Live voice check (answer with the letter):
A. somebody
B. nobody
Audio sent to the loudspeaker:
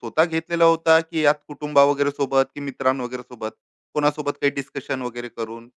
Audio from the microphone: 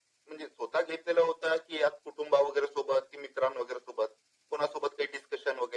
B